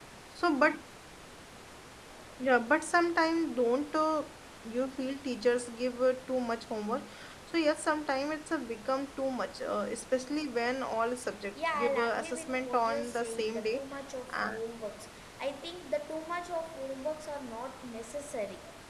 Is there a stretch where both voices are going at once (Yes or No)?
Yes